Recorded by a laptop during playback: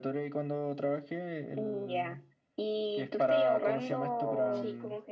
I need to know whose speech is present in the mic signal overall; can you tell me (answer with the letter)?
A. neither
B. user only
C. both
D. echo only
C